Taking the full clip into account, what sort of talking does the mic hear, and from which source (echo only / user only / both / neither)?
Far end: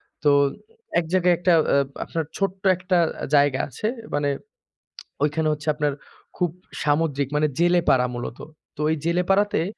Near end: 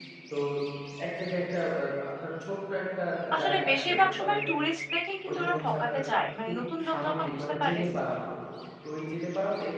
both